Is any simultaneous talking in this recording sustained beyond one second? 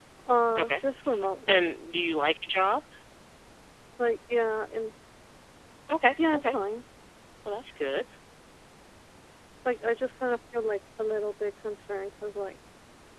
No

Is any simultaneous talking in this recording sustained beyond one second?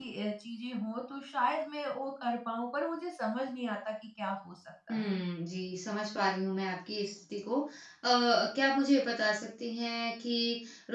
No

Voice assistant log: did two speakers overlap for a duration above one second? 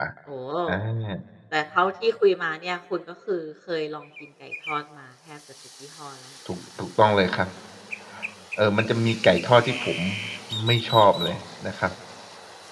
No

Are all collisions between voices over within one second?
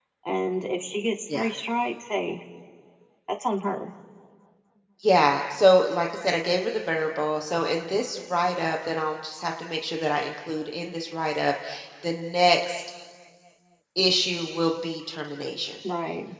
Yes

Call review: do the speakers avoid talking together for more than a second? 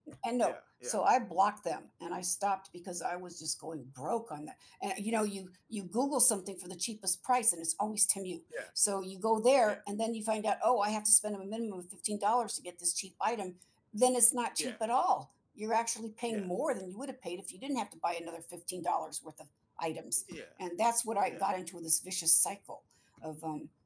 Yes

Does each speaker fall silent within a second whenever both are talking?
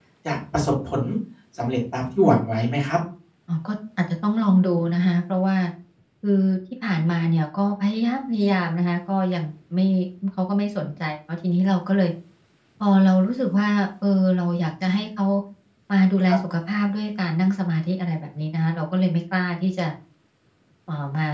Yes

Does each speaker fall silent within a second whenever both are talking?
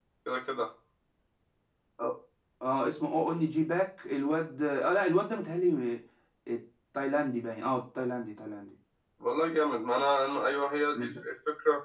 Yes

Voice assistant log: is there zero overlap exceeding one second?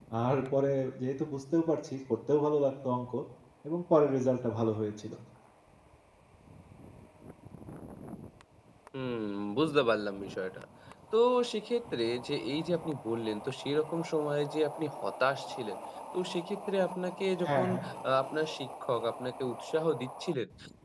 Yes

